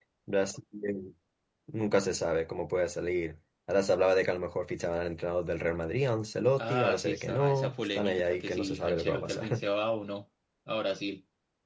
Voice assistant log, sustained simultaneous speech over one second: present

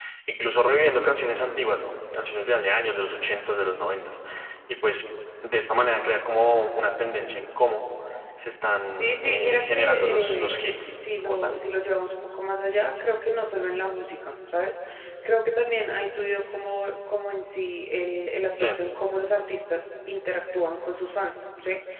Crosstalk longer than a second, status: present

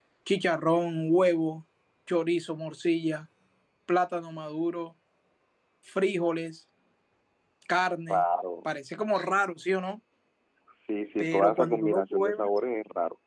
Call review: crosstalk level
present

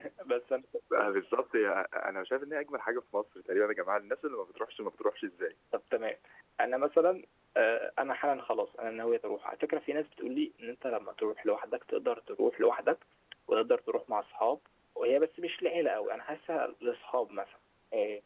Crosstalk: none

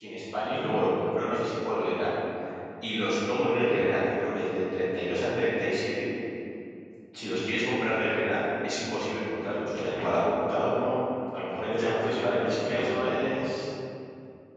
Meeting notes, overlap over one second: present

